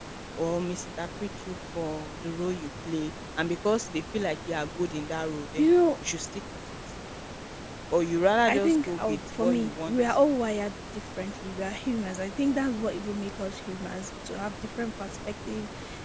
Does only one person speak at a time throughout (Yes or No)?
No